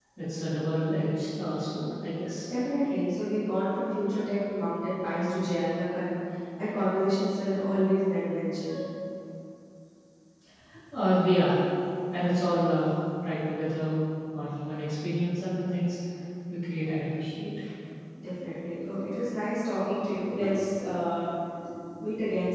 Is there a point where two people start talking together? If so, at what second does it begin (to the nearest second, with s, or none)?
none